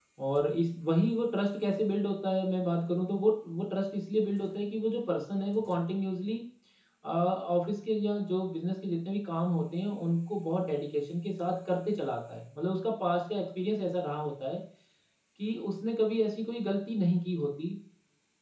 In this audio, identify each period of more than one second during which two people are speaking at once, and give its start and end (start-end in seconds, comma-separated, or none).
none